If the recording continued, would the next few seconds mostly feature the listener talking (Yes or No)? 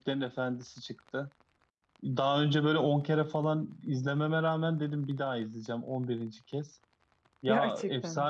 No